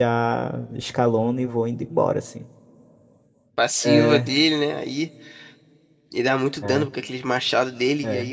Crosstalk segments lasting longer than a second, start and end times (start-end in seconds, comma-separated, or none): none